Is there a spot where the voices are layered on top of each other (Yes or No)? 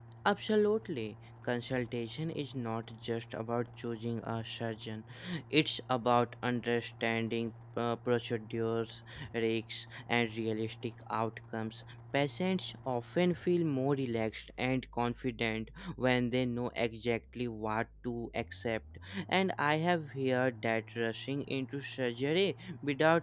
No